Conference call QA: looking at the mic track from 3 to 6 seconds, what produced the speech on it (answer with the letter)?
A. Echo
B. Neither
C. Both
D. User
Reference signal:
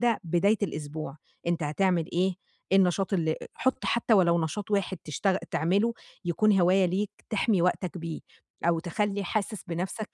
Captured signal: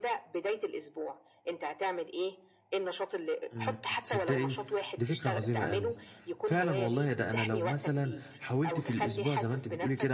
C